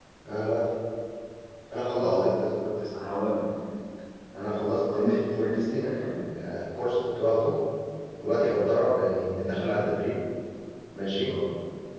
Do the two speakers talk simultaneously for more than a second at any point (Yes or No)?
Yes